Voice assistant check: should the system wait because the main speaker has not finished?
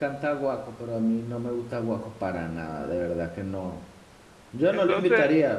Yes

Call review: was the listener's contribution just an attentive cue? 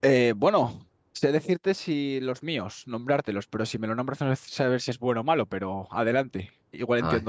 No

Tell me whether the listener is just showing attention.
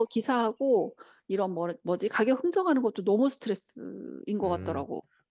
No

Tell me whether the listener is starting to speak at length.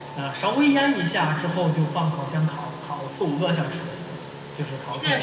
Yes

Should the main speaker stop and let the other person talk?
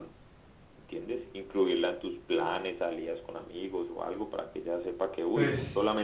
No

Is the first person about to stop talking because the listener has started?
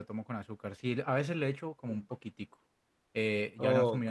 No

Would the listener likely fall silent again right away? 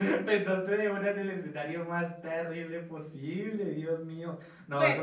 No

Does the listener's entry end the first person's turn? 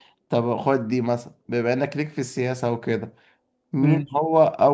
No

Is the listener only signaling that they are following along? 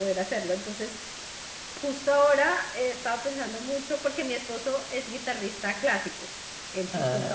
Yes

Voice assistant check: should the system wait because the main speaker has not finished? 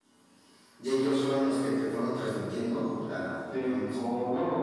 No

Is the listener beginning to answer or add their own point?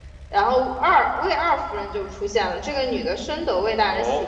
Yes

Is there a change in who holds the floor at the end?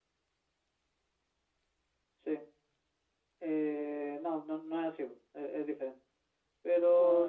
No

